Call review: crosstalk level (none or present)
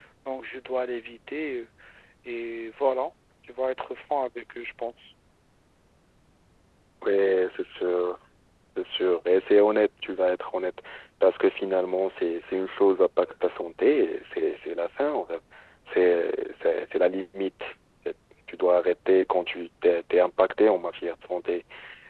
none